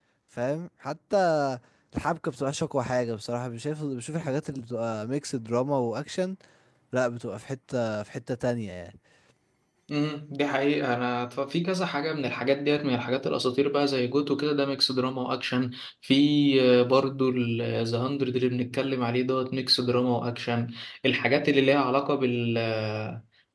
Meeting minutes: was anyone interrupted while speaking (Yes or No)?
No